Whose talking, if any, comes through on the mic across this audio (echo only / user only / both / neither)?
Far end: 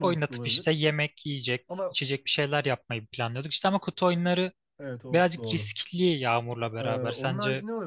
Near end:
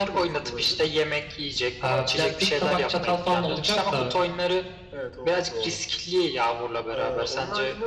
both